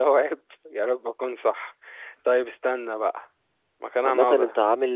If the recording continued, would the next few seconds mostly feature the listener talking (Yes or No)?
Yes